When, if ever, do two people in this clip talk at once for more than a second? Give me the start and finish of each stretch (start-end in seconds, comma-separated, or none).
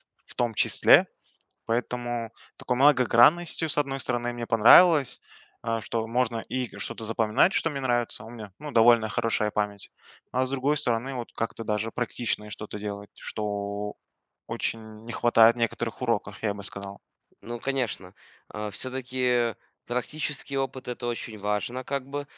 none